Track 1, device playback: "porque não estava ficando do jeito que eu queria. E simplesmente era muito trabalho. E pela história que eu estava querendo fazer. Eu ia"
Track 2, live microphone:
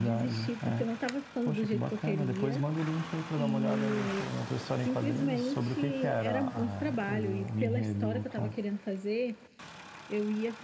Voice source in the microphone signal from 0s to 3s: both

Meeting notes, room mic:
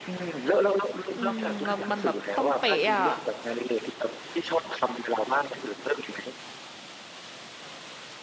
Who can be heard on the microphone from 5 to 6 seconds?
echo only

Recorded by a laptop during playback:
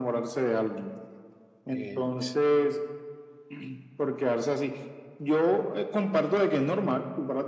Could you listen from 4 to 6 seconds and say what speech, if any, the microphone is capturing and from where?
echo only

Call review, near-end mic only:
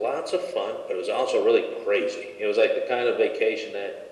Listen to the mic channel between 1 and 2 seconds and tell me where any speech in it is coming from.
echo only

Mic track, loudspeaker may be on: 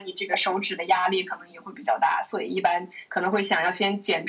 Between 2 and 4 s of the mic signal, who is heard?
echo only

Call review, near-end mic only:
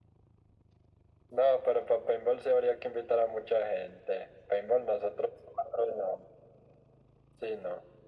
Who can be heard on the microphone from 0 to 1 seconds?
neither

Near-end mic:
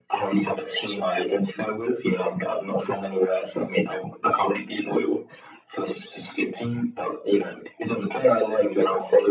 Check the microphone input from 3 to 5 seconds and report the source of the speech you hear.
echo only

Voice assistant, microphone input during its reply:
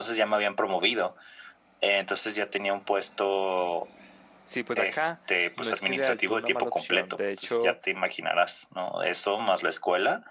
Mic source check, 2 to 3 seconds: echo only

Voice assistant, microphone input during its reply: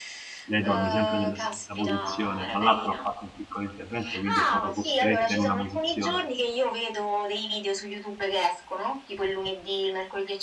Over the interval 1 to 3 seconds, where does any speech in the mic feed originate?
both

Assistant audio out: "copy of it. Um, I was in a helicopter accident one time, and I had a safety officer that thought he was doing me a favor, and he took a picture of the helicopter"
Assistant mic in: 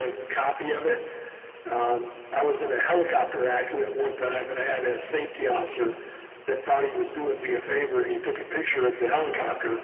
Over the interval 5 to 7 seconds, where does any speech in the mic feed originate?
echo only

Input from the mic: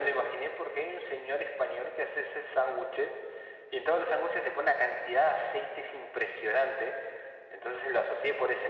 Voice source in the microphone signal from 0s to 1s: echo only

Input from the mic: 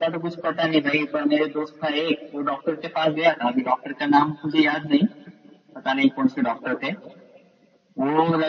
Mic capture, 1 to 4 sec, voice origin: echo only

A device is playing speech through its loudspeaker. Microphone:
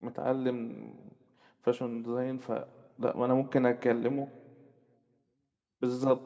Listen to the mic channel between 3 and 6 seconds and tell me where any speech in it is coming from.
user only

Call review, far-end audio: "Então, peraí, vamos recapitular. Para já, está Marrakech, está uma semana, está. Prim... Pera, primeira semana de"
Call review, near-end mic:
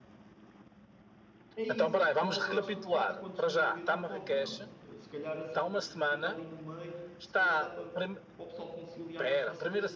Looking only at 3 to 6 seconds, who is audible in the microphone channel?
both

